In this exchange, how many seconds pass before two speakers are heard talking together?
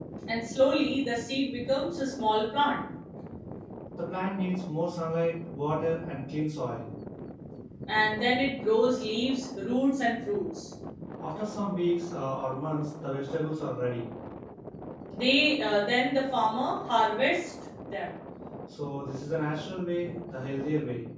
none

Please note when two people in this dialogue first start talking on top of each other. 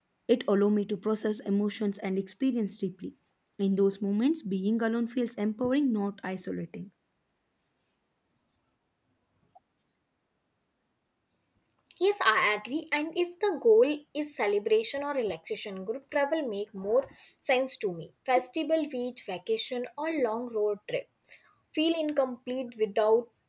none

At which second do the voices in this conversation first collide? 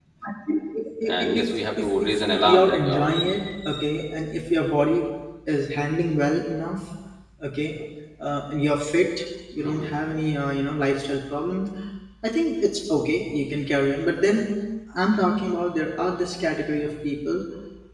1.3 s

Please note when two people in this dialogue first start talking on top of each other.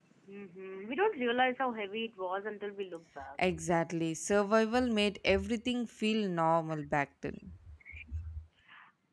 none

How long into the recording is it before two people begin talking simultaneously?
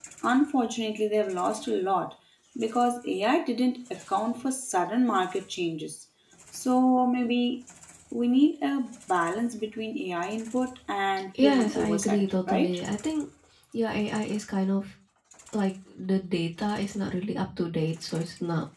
11.3 s

